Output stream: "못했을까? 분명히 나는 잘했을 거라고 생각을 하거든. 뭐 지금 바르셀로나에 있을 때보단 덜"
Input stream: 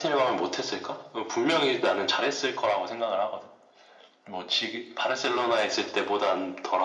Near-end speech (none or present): none